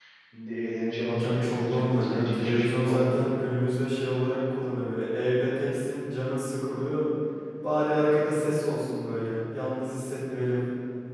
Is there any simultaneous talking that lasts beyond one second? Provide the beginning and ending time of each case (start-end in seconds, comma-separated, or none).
1.0-3.3